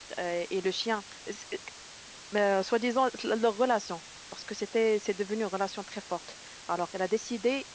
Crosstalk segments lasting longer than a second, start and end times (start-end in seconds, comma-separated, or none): none